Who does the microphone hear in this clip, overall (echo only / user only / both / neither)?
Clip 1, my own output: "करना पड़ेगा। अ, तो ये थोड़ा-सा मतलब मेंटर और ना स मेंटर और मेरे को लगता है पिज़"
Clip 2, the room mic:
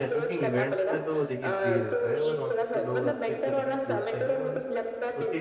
both